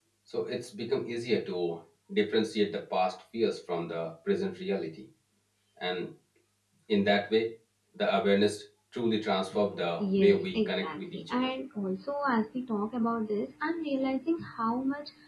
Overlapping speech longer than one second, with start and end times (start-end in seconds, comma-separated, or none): 10.0-11.5